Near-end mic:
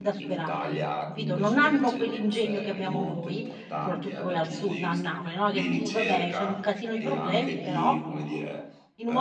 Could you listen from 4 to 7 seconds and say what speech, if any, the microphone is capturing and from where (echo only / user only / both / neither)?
both